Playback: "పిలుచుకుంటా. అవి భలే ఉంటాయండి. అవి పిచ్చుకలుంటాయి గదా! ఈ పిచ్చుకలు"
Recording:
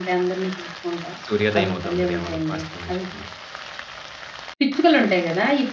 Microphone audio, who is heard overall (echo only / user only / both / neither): both